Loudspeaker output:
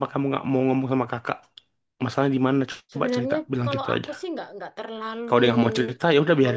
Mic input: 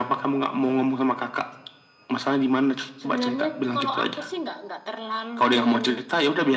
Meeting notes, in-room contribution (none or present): none